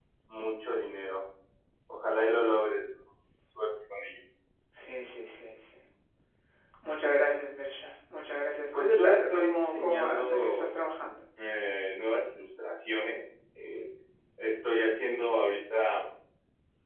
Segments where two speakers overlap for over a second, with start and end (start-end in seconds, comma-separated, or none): 8.7-10.8